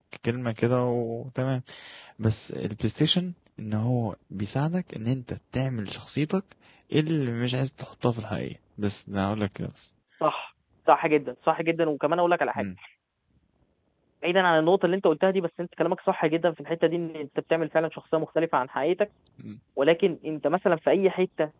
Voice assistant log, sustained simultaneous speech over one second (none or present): none